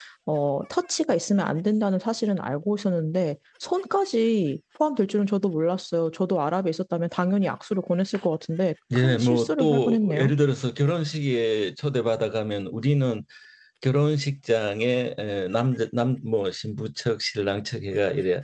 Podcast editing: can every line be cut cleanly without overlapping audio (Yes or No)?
No